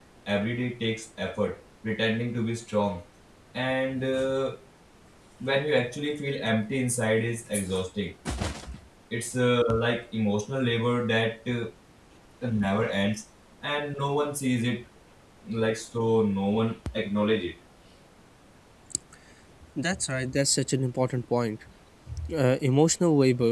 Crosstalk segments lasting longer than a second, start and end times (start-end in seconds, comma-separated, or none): none